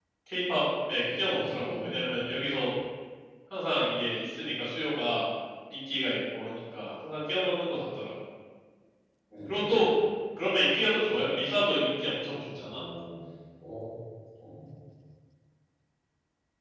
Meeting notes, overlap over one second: present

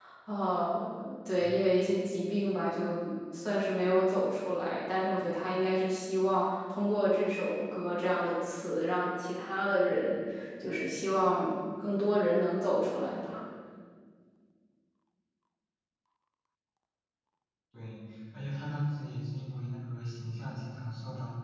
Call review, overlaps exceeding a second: none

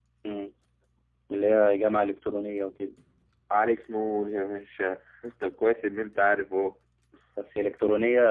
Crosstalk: none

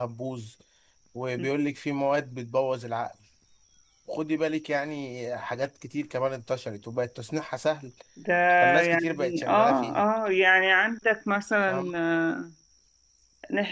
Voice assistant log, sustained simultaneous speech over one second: present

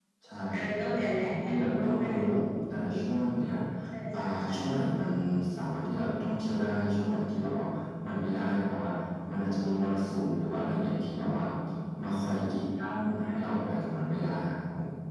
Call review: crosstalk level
present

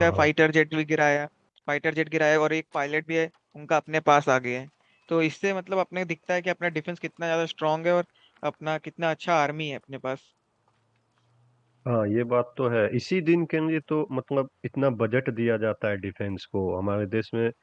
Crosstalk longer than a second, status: none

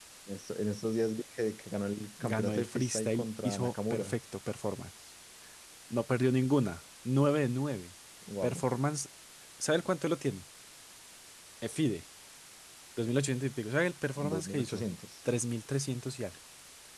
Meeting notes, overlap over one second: present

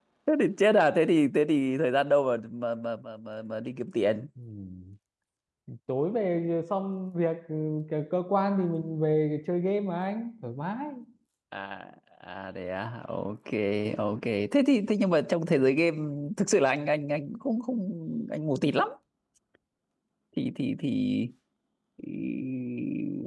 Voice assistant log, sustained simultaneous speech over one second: none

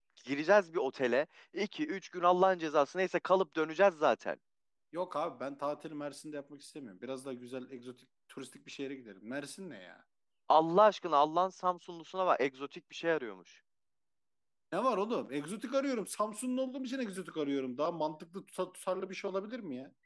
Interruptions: none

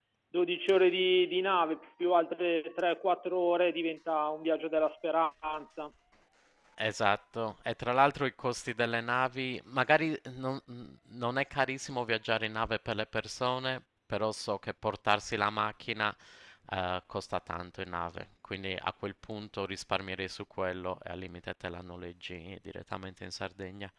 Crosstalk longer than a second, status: none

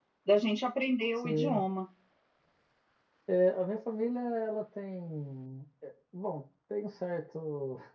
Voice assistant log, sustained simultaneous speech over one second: none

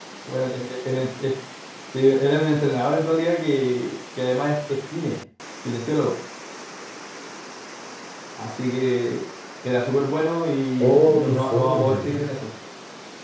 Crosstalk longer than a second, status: present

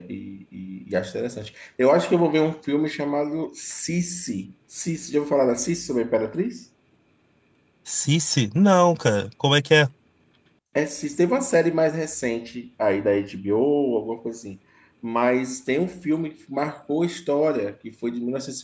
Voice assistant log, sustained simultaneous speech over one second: none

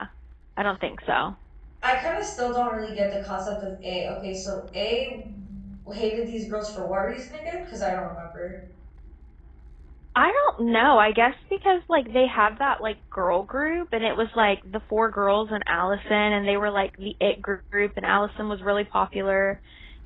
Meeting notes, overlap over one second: none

